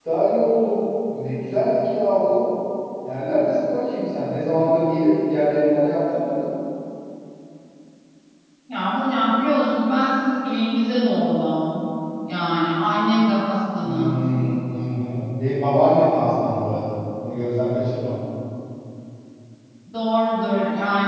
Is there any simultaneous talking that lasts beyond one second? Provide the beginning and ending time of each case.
none

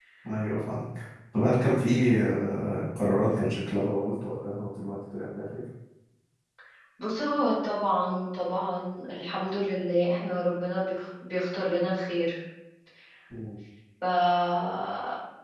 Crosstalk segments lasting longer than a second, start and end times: none

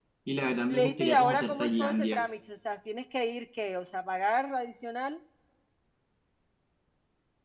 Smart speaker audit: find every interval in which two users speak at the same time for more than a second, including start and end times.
0.7-2.2

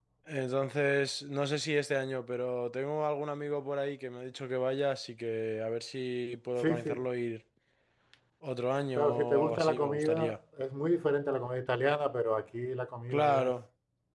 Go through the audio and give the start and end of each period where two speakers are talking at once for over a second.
9.0-10.3

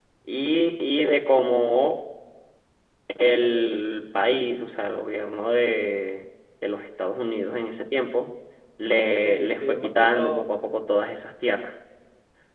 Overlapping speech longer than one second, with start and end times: 9.2-10.4

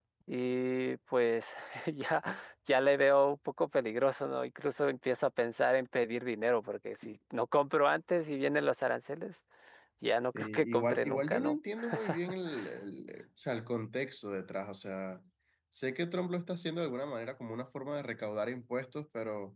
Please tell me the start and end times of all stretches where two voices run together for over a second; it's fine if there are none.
10.3-11.6

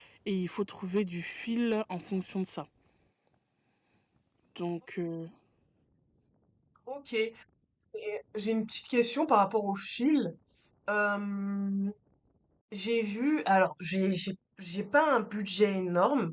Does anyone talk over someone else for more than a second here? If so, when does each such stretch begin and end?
none

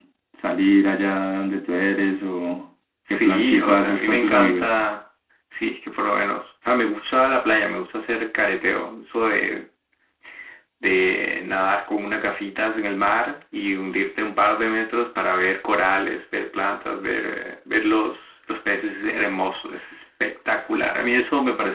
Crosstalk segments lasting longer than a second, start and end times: 3.1-4.8

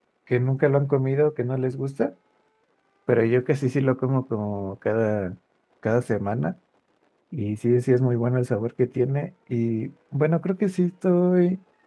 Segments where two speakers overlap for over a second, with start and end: none

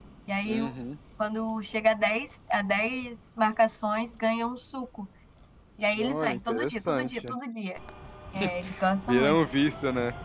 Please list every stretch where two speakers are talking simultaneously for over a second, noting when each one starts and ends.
6.0-7.3

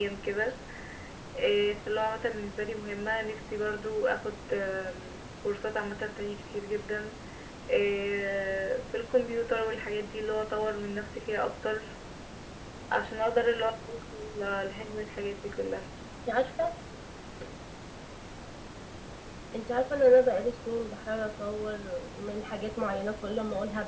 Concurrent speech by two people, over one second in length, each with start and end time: none

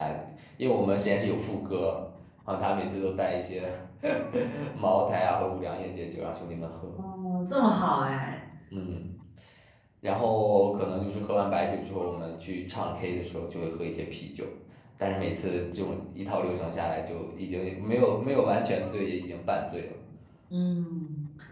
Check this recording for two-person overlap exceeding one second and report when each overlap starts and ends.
none

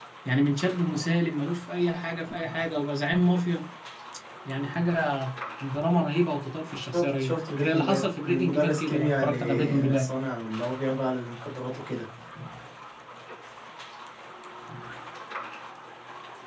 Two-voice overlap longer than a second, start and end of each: 6.9-10.1

